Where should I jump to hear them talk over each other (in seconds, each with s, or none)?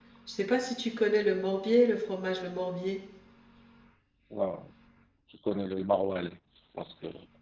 none